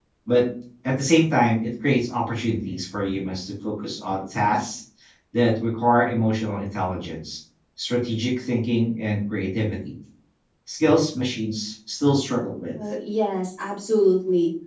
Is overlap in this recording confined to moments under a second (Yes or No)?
Yes